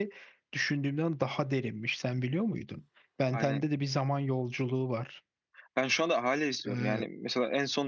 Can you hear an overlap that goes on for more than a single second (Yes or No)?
No